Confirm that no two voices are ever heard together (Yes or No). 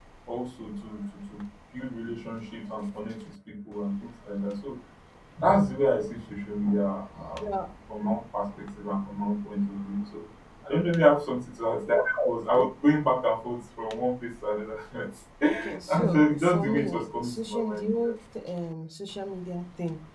No